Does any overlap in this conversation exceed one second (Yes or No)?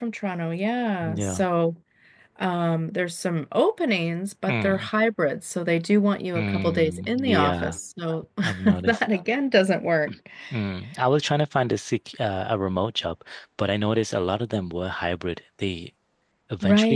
Yes